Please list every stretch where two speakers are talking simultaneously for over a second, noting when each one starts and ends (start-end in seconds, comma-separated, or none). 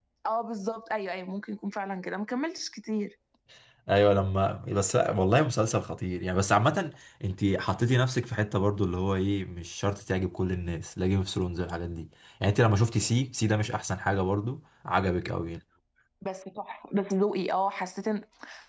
none